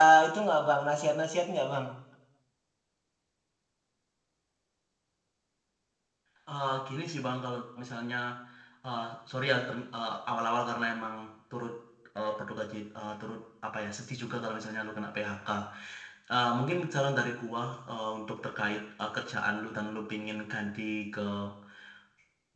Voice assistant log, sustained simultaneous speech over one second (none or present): none